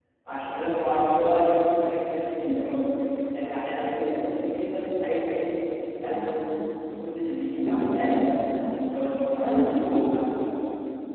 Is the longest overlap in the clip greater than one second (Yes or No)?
No